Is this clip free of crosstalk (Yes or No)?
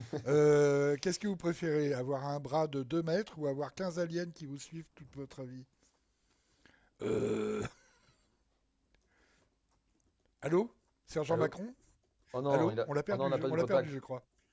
No